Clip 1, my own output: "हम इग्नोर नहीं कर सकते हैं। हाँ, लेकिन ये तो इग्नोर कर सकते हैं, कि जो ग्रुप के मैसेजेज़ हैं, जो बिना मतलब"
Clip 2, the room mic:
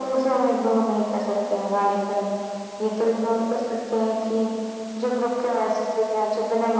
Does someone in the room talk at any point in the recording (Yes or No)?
No